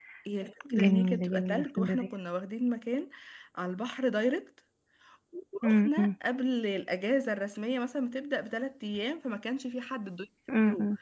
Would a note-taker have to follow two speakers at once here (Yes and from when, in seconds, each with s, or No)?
Yes, from 0.7 s